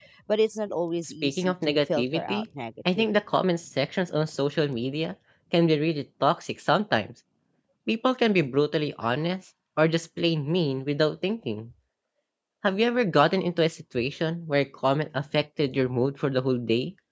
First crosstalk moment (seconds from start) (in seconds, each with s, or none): 1.0 s